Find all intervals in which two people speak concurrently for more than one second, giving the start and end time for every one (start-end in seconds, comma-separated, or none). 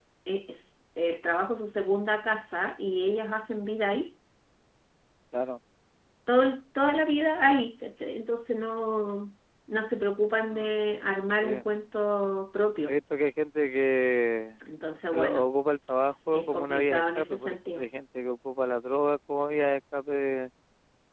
16.3-17.9